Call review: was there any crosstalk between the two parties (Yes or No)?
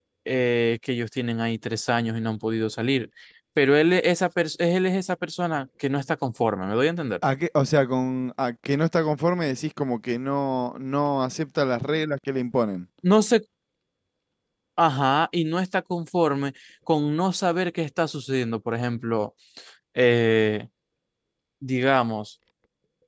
No